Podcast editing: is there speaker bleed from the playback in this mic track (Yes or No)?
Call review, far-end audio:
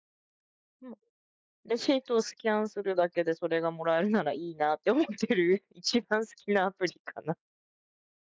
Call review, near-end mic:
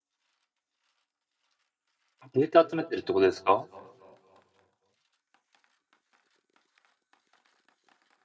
No